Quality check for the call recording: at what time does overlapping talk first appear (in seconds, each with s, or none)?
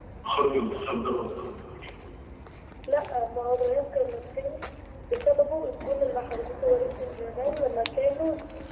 none